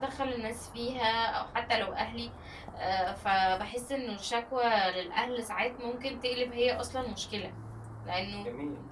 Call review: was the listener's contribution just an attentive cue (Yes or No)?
Yes